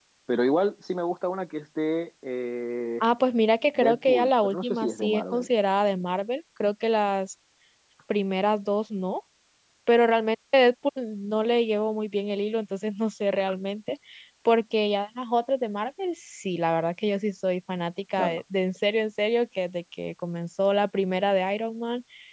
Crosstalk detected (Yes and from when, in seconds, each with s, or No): Yes, from 3.8 s